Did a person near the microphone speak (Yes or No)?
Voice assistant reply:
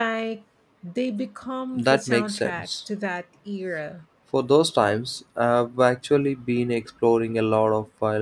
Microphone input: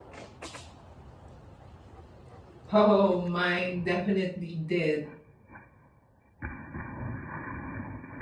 Yes